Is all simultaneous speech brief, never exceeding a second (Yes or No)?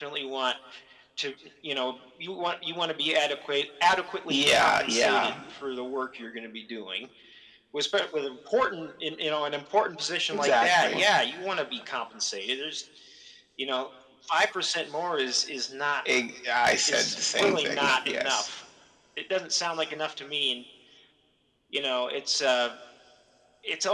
No